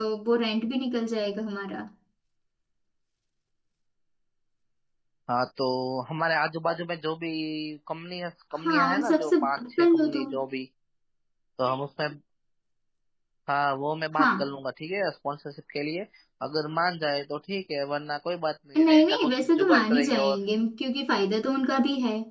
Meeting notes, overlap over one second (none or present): present